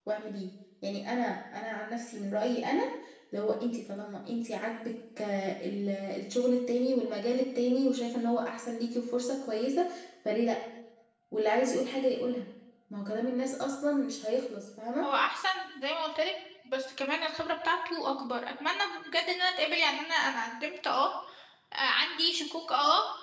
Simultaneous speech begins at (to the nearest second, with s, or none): none